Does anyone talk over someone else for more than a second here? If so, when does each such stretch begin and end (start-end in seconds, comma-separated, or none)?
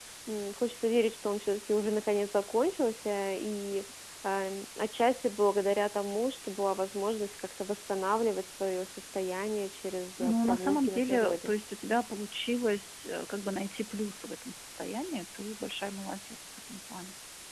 10.2-11.5